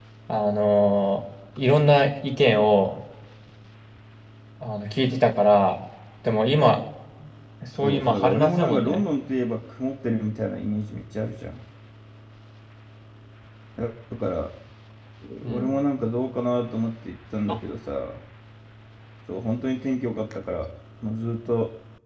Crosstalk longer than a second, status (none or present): present